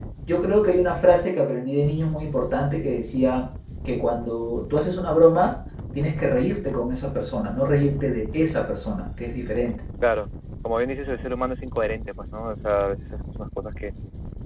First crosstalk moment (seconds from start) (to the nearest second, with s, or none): none